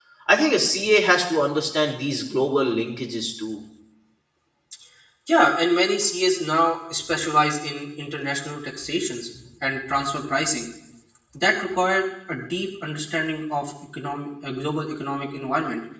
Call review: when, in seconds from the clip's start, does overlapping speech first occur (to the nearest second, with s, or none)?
none